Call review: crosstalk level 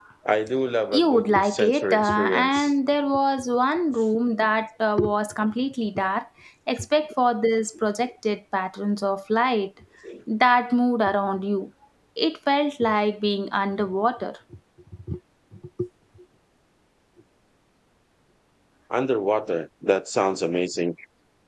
present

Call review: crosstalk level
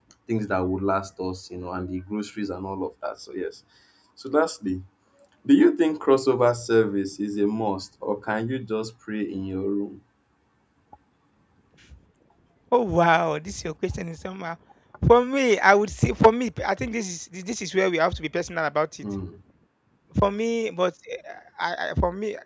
none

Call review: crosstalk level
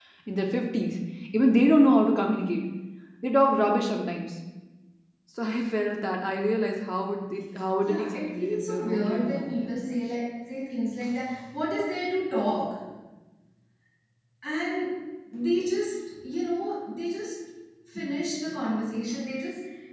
present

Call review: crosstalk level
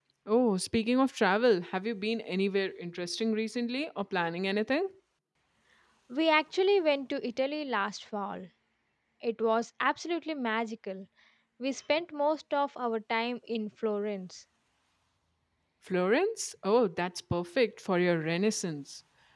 none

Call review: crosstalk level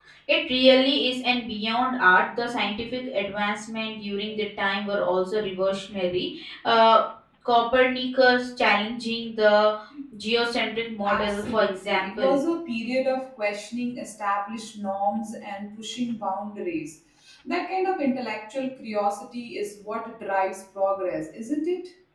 present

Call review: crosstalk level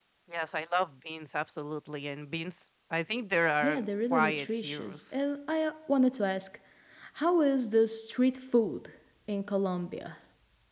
present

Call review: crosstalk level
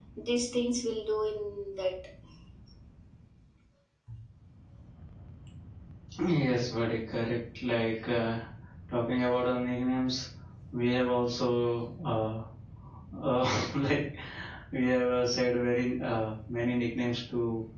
none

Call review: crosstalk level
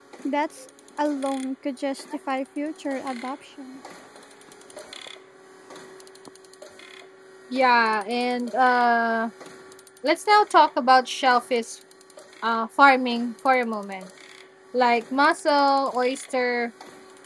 none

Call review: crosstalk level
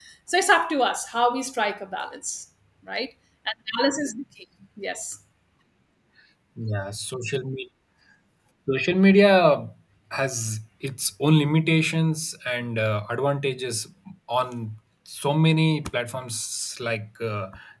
none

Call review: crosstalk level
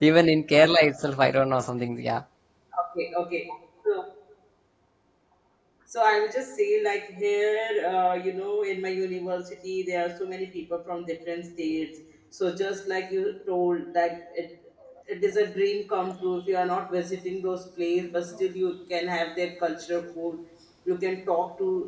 none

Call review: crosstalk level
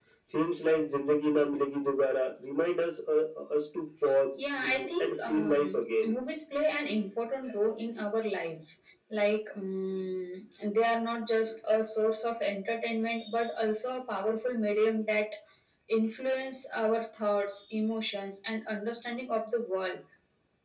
present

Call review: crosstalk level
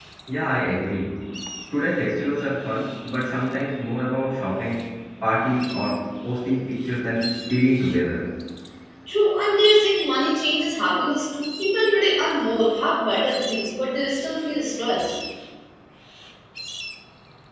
none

